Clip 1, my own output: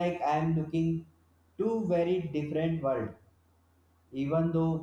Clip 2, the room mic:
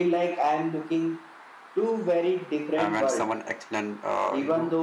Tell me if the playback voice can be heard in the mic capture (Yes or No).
Yes